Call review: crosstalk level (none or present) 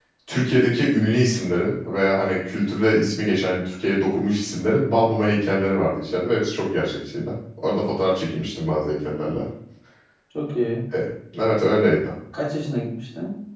none